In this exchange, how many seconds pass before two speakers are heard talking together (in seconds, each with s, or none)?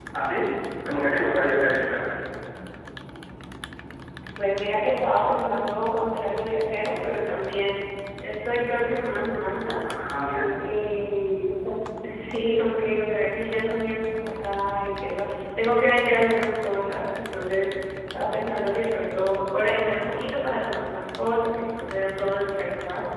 none